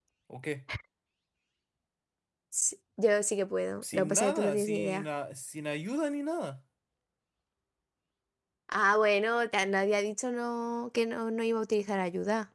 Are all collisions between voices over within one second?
No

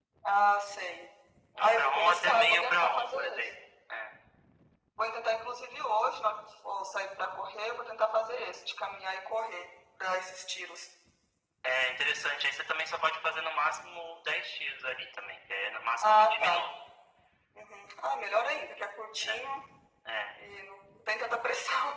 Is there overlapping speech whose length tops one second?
Yes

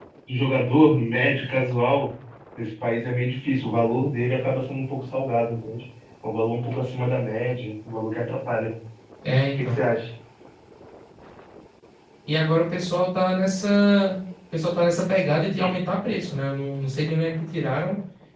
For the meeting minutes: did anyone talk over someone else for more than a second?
No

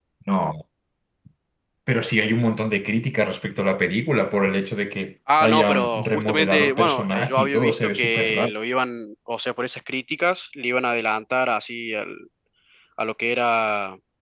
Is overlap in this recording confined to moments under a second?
No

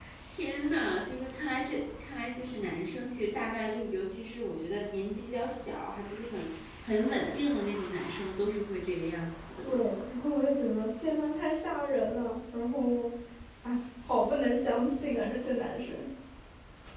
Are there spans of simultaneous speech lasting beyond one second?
No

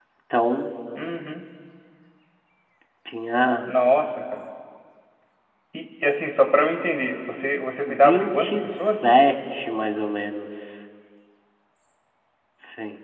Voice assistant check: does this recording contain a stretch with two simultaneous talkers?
Yes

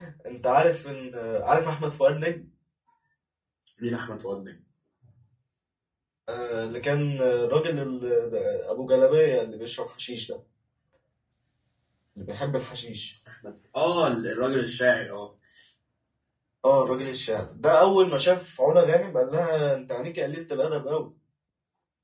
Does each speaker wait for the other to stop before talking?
Yes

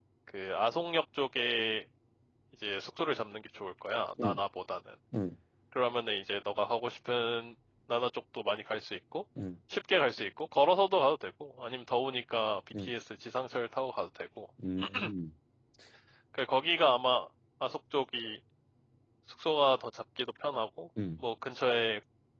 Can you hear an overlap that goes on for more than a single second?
No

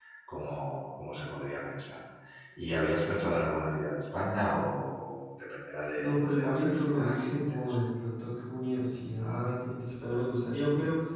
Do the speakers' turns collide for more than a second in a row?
Yes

